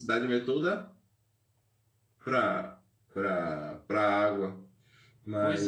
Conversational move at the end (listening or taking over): taking over